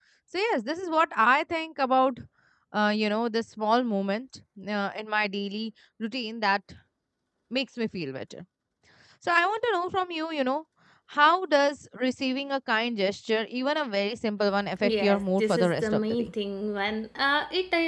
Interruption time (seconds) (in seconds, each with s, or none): 14.8 s